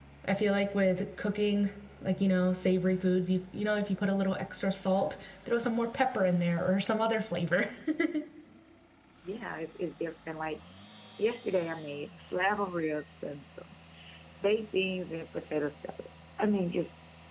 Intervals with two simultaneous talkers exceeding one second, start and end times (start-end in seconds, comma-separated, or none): none